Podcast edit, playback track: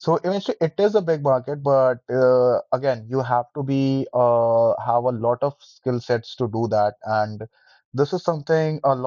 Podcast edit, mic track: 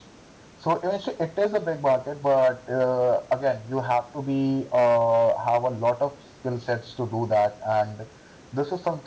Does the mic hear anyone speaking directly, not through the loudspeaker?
No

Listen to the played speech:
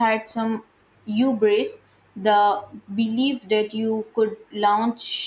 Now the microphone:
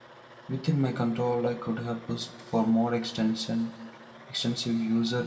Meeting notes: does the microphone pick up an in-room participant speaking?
Yes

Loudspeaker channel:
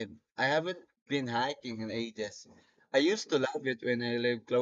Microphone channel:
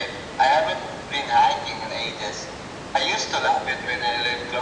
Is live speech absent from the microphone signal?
Yes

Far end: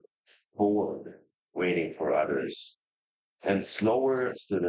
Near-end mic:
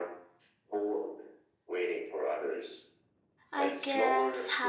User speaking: Yes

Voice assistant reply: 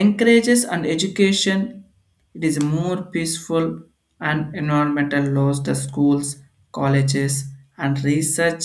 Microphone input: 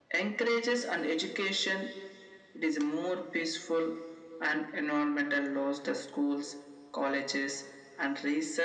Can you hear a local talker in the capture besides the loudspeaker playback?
No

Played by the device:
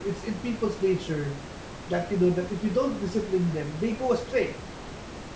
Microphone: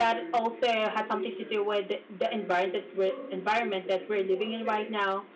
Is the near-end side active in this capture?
Yes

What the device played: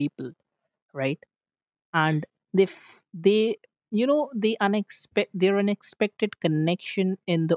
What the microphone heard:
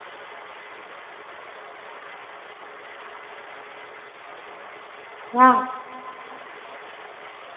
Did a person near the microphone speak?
Yes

